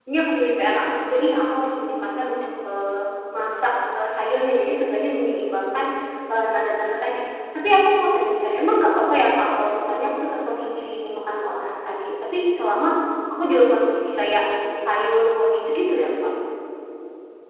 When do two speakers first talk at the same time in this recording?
none

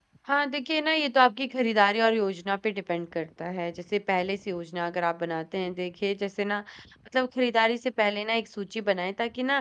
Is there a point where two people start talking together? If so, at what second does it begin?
none

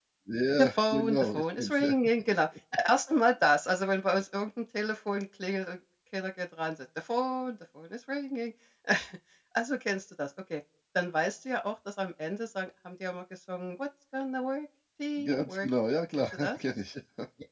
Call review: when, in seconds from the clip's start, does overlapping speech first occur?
0.6 s

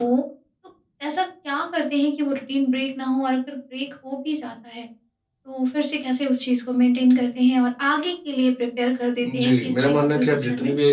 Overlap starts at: 9.2 s

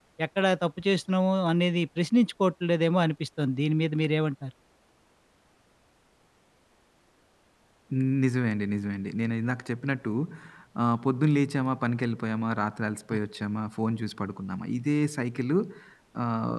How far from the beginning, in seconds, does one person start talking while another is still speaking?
none

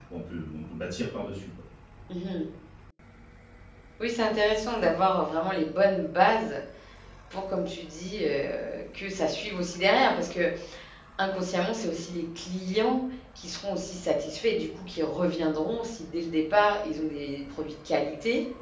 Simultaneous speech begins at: none

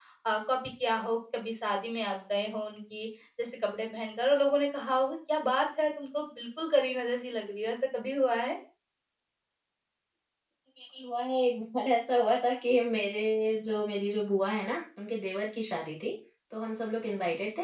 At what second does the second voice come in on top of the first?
none

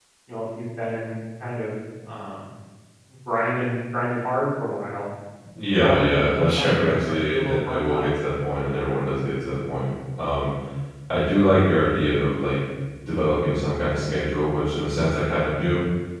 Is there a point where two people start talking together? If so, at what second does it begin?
5.8 s

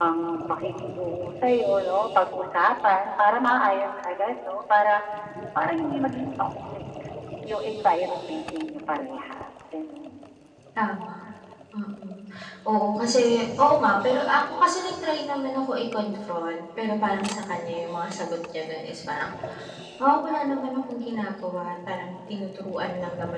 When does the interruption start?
none

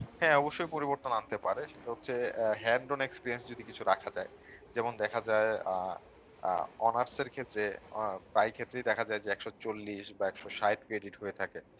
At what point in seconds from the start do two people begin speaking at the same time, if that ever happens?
none

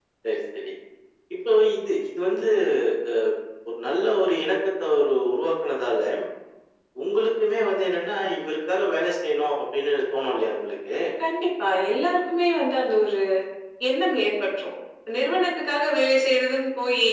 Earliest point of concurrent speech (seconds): none

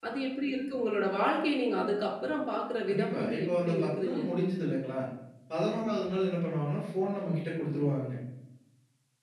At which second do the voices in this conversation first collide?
2.9 s

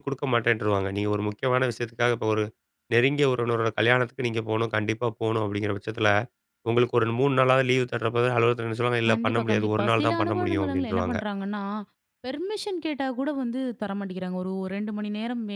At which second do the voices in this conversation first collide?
9.1 s

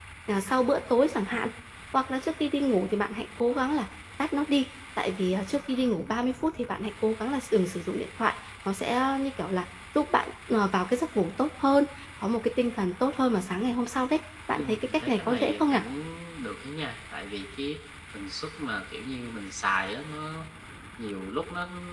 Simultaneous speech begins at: 14.5 s

